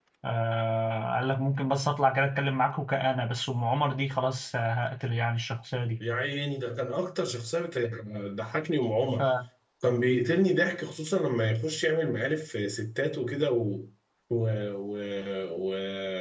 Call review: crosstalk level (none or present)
none